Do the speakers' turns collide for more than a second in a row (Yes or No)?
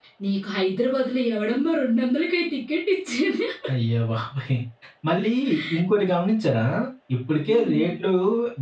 No